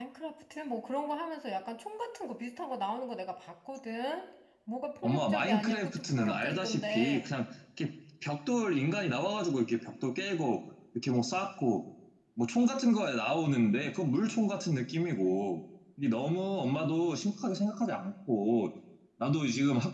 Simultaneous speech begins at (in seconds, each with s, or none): 5.0 s